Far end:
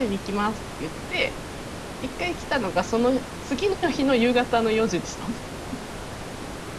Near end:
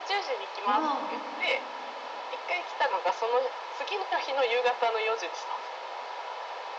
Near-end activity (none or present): present